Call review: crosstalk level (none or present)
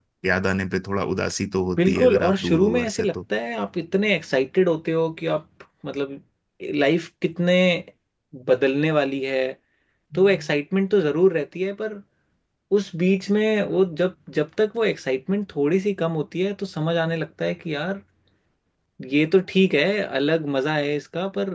present